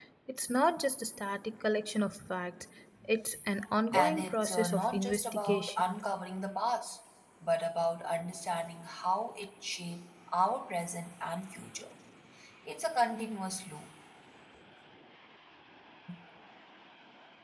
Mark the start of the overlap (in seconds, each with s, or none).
3.9 s